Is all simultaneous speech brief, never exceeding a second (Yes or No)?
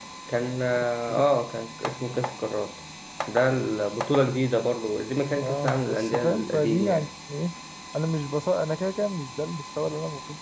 No